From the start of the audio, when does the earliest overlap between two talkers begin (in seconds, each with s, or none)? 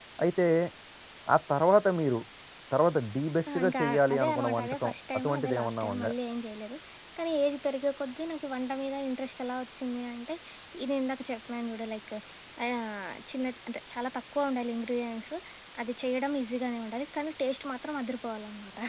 3.6 s